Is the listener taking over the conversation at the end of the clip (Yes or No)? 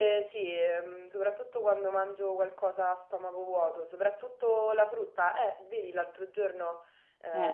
No